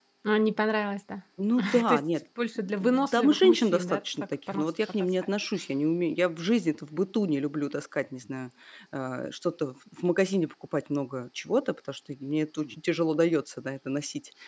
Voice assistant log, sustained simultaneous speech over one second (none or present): present